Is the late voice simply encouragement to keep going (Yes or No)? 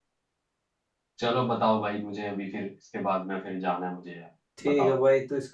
No